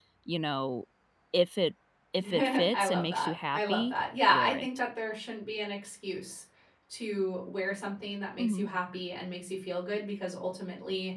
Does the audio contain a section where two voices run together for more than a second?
Yes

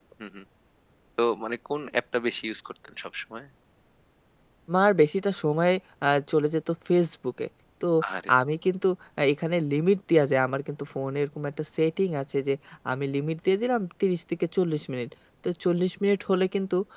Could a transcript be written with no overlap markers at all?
Yes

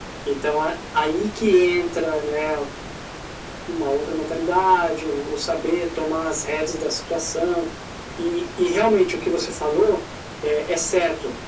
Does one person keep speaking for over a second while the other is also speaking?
No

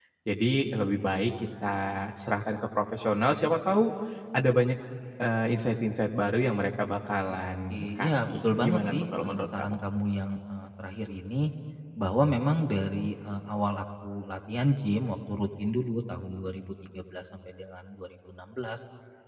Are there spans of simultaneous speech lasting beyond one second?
Yes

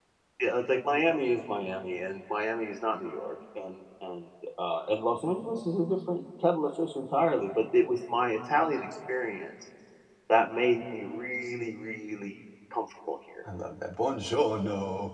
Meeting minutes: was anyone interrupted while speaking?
No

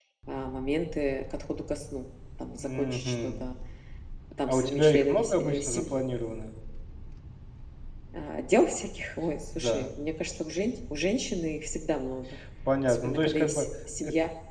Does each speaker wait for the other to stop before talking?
No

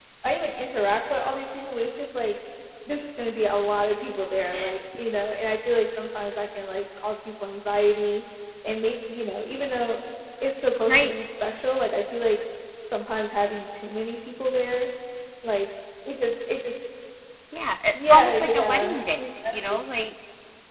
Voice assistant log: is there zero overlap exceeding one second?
No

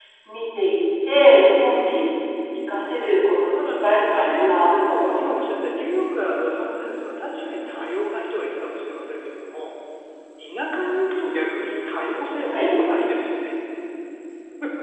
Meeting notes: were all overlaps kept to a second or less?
No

